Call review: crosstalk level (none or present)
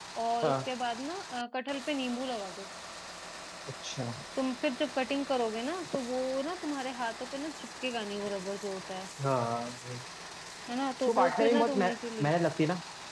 present